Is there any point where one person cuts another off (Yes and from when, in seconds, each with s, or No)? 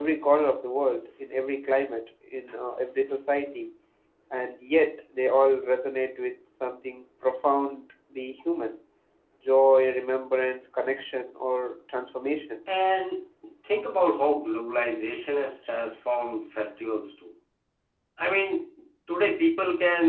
No